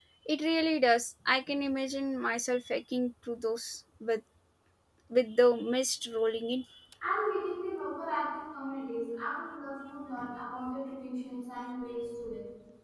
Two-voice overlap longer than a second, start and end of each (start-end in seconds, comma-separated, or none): none